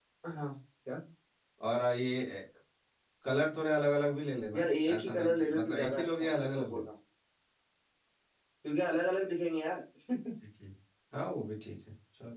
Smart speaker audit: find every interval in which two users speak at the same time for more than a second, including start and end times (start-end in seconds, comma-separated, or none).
4.5-6.8